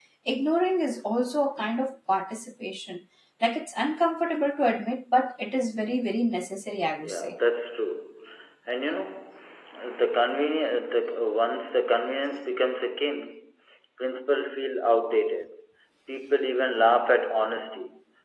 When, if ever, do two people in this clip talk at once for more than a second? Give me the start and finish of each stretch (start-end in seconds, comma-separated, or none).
none